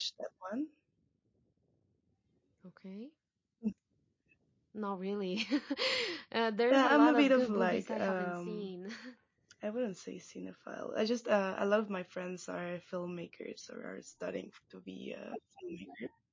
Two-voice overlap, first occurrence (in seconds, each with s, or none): 6.7 s